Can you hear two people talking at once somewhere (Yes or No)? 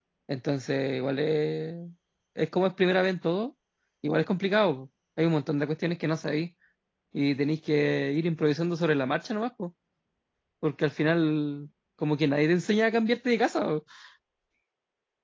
No